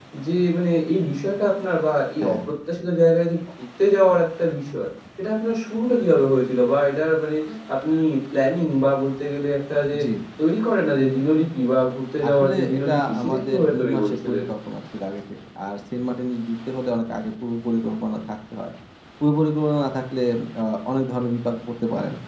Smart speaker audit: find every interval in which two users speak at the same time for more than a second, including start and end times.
12.3-14.4

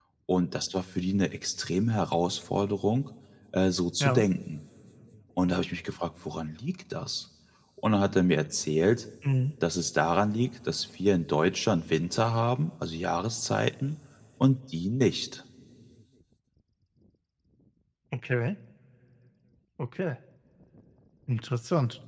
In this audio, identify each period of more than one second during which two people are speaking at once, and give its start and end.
none

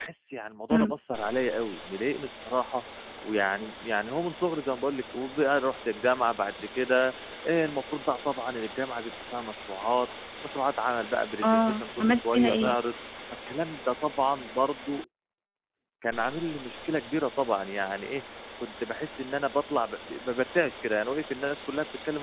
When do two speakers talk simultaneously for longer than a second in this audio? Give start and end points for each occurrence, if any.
11.4-12.8

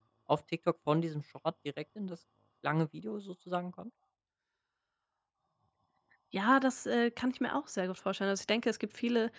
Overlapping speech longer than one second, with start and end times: none

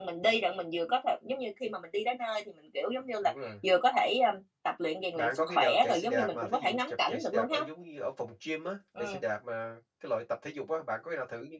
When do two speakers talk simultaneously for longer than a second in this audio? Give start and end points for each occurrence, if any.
5.2-7.6

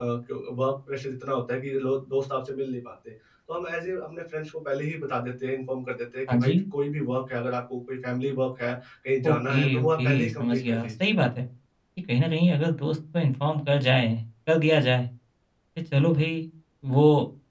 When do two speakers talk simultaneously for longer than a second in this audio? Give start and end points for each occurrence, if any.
9.3-11.1

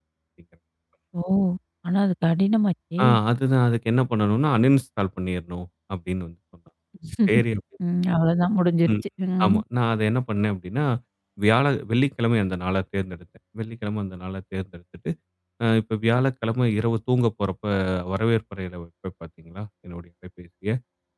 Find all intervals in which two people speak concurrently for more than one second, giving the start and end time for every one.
none

